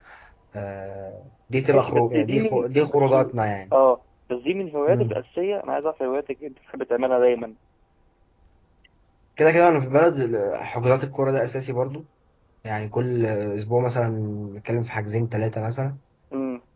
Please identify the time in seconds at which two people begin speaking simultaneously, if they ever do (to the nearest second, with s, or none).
2 s